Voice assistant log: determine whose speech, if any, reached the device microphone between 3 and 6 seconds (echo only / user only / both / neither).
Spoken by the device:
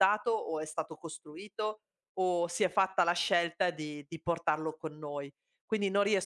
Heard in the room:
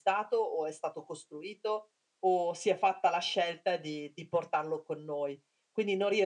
echo only